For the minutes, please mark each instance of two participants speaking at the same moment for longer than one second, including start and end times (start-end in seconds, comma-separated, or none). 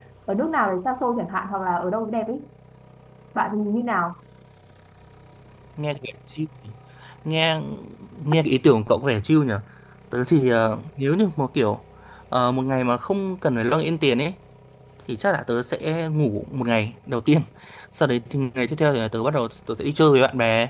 none